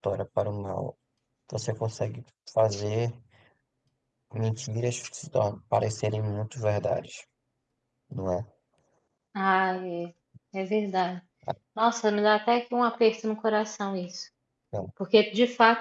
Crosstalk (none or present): none